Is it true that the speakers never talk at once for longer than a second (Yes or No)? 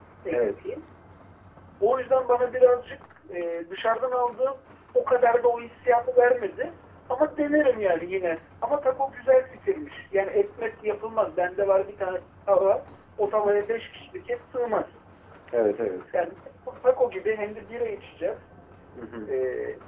Yes